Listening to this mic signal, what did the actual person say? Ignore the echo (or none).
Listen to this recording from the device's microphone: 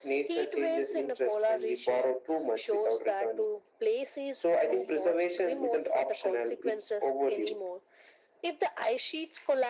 none